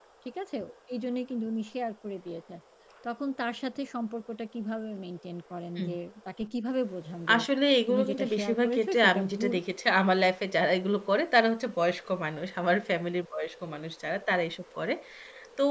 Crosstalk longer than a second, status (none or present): present